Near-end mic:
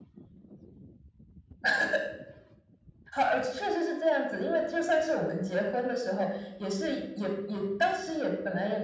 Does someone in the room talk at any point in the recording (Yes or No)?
No